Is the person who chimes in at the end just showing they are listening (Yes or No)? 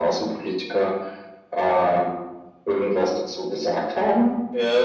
No